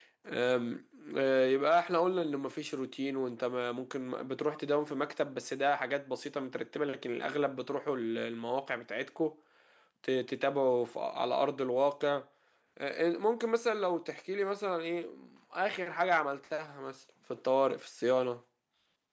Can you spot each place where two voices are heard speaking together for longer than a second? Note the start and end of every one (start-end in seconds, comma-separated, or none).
none